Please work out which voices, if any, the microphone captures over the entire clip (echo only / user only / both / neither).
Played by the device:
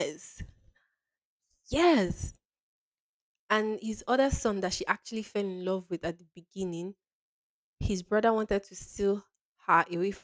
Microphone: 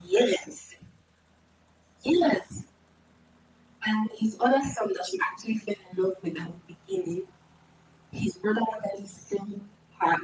echo only